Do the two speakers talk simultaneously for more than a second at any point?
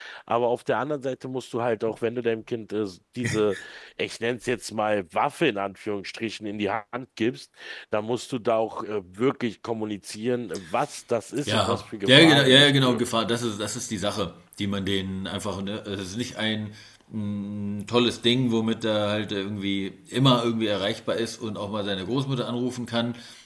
Yes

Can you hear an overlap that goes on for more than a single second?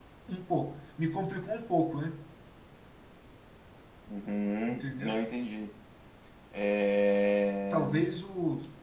No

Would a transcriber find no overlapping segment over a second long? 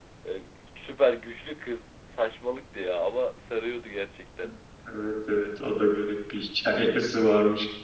Yes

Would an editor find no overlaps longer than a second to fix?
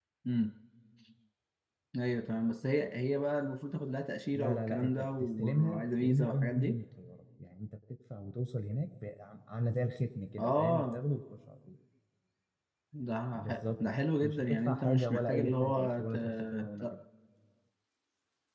No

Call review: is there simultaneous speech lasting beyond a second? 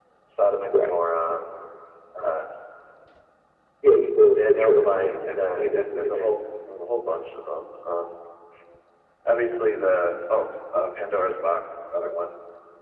Yes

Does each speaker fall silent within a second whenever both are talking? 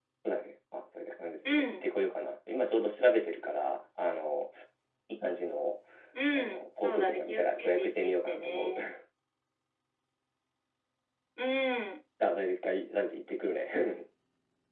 No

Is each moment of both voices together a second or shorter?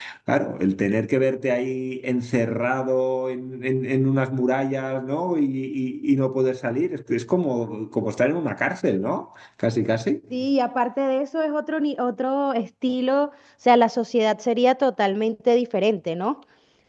Yes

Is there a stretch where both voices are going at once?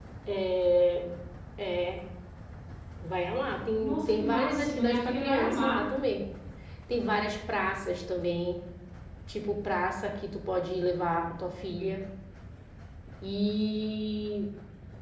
Yes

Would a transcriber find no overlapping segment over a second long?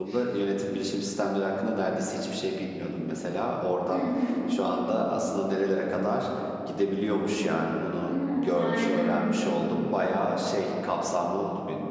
No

